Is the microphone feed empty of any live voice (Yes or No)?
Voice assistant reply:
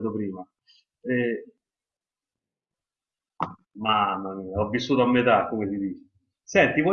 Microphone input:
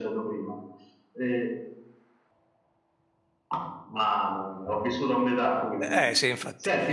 No